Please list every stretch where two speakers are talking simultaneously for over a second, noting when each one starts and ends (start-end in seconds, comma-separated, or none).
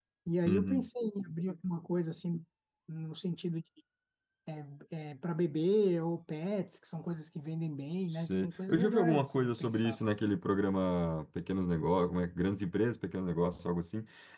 8.1-10.0